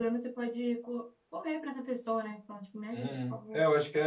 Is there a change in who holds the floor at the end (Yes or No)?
Yes